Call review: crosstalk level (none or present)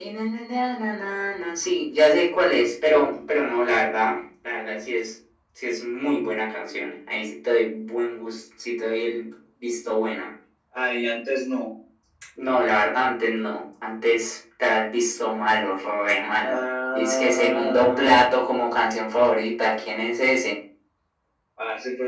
present